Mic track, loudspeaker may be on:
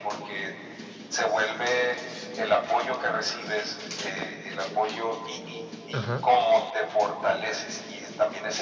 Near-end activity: present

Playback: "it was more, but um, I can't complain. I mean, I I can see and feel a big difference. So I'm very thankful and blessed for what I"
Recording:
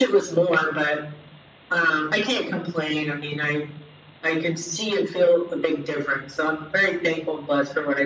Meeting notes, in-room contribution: none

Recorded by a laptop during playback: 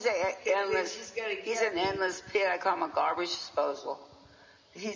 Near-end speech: present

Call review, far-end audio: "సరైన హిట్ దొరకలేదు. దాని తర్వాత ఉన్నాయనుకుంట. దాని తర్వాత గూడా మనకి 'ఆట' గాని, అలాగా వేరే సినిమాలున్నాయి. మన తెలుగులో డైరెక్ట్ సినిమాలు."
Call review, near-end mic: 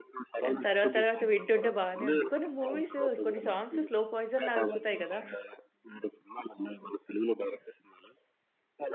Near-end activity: present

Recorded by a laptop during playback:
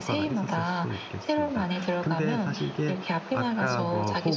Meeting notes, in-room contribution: present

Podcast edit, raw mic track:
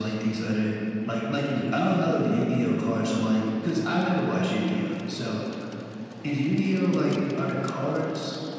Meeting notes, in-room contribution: none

